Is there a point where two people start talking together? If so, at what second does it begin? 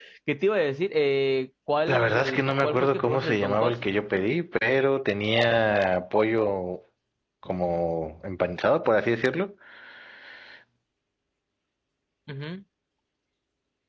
2 s

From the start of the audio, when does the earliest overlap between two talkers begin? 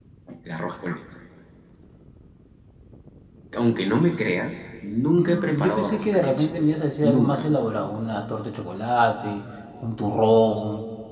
5 s

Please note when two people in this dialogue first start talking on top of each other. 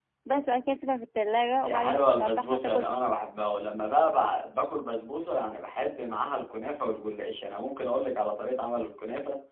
2 s

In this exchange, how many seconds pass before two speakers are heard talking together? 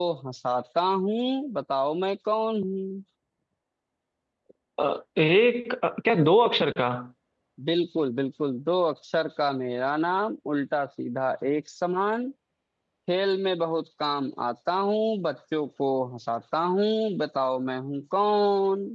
none

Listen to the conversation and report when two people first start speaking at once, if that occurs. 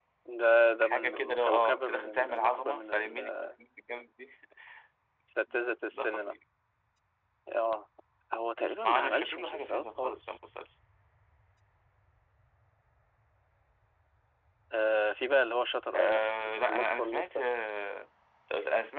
1 s

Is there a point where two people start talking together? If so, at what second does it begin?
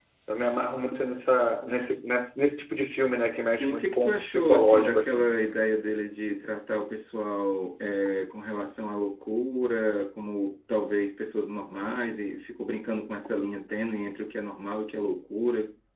3 s

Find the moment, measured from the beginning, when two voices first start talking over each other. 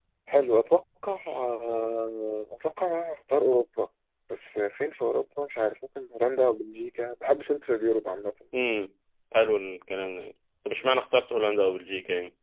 none

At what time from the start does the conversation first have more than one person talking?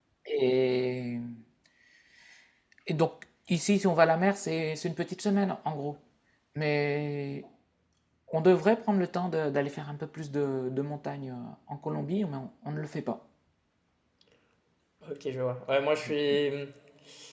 none

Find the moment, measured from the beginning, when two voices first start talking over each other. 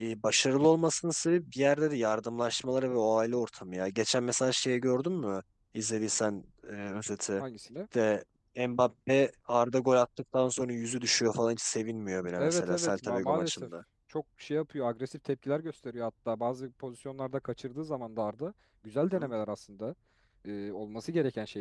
12 s

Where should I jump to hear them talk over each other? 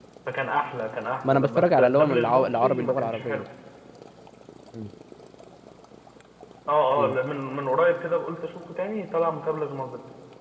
1 s

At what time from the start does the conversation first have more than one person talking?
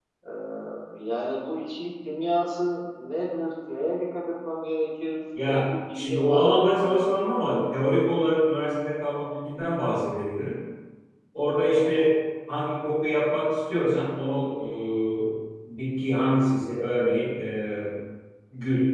5 s

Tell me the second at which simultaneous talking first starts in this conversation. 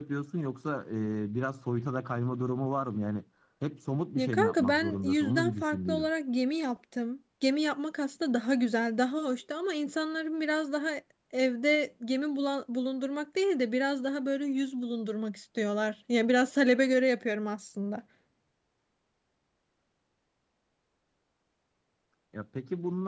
4 s

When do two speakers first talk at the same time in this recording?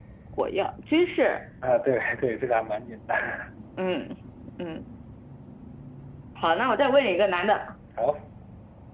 none

